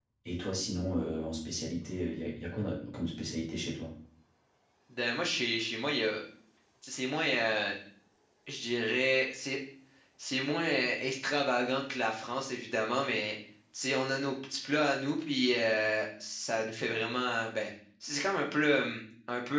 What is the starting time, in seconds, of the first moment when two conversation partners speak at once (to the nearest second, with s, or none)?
none